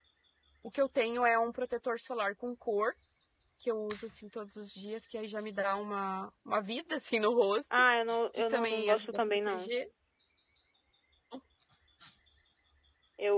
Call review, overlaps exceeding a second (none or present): present